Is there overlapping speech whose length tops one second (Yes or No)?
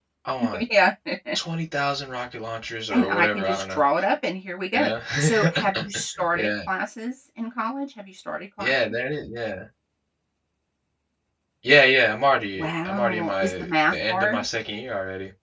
Yes